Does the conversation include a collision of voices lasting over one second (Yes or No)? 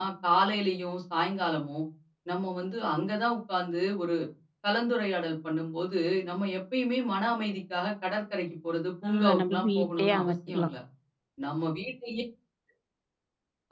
Yes